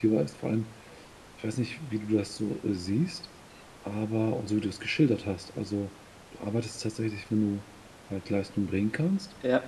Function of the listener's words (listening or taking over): listening